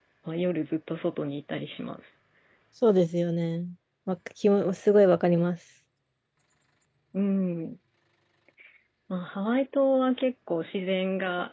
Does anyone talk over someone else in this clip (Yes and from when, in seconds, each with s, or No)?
No